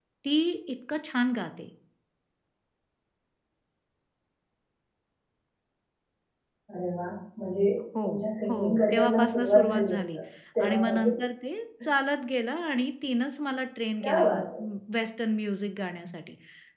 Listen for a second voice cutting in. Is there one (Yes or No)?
Yes